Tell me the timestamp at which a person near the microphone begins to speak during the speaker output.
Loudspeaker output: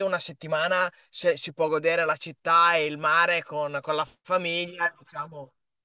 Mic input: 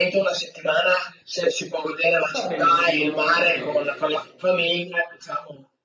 2 s

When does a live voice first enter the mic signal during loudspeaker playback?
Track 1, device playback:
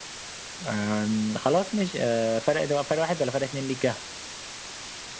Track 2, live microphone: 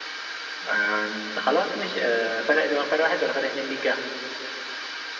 none

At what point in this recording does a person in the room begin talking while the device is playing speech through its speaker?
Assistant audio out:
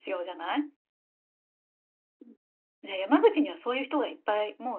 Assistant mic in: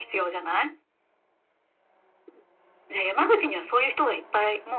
none

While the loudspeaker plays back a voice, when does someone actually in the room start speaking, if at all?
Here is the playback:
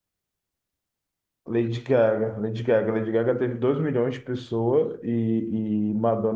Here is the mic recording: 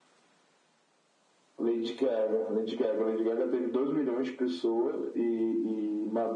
none

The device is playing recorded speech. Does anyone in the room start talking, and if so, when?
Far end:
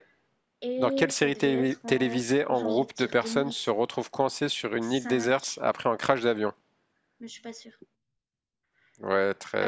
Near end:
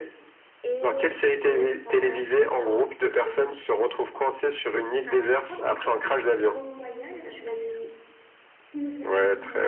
5 s

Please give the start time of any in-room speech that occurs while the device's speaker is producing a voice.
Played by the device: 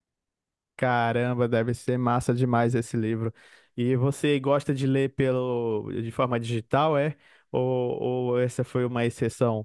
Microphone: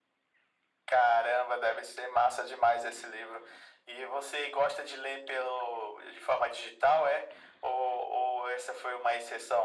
none

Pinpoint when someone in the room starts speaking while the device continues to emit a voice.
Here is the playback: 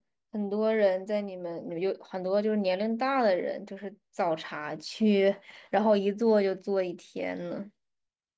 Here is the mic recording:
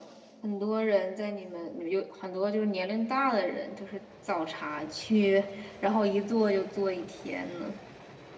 none

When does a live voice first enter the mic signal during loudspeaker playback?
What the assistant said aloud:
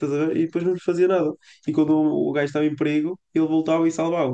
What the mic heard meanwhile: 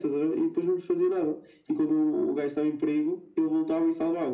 none

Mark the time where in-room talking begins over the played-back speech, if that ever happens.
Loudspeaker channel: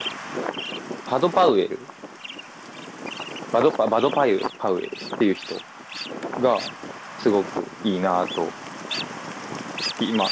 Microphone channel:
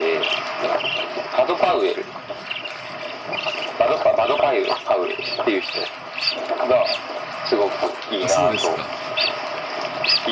8 s

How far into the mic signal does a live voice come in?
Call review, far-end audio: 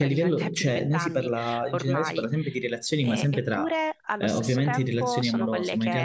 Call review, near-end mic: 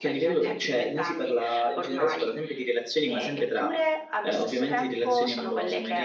none

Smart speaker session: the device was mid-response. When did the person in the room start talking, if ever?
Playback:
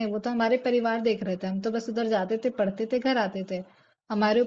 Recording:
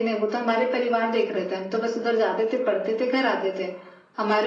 none

